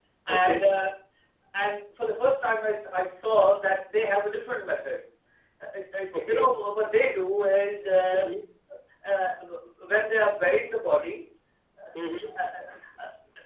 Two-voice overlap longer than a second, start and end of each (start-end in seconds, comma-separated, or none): none